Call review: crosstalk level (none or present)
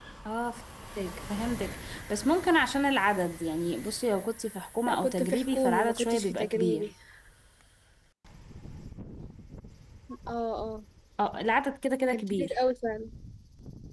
present